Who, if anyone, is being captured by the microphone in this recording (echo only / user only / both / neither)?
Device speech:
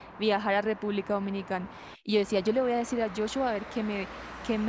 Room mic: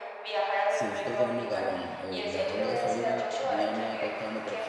both